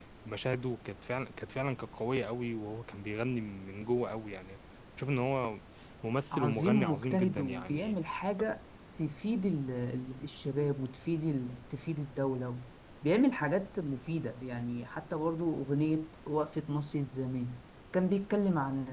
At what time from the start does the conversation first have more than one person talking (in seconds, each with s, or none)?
6.3 s